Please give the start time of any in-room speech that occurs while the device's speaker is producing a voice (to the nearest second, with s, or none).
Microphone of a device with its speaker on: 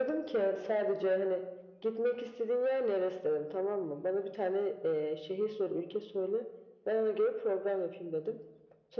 none